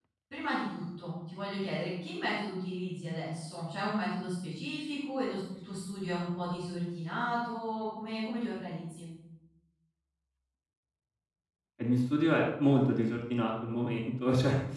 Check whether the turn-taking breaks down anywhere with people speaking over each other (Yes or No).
No